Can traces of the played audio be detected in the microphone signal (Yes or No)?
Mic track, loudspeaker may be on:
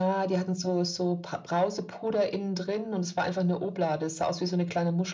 Yes